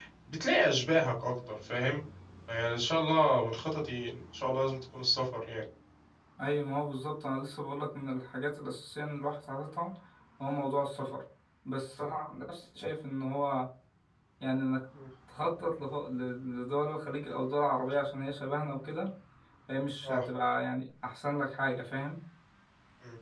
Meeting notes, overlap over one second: none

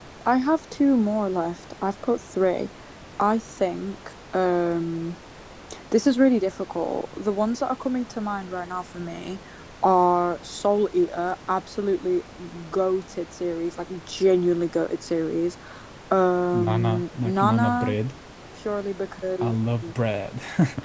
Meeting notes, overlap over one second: present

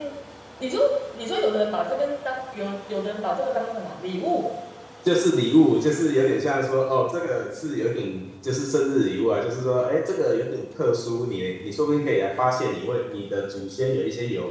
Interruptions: none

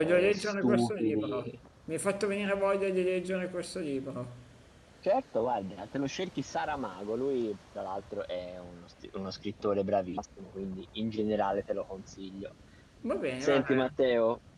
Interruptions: present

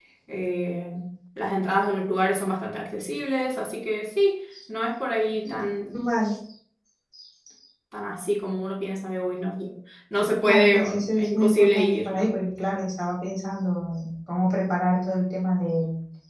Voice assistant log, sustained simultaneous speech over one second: present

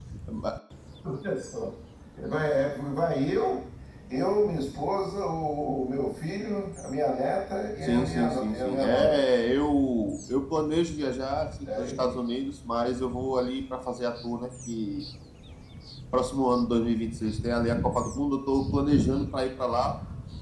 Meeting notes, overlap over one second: present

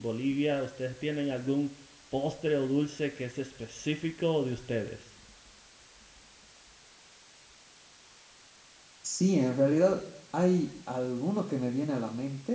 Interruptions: none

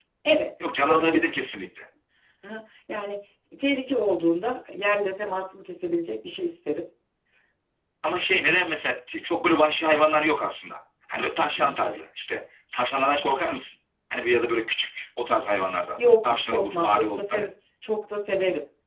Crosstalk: present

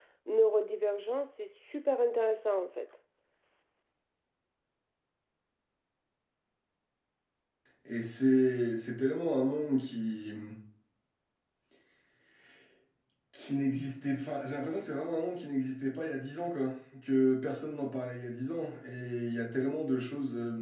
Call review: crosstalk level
none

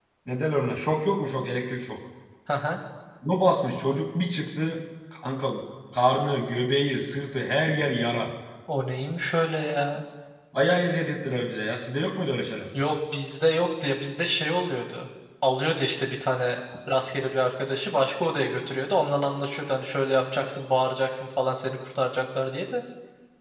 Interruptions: none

